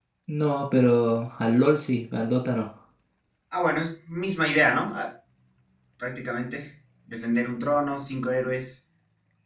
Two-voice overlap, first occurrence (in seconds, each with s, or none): none